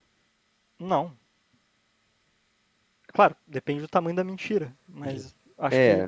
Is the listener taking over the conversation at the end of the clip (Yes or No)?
Yes